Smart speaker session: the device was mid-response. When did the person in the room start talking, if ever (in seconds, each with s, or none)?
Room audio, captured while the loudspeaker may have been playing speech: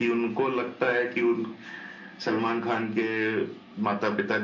none